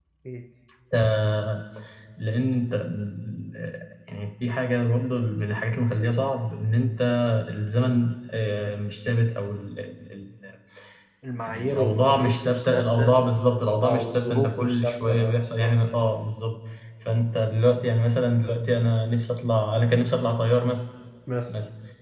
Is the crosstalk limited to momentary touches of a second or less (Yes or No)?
No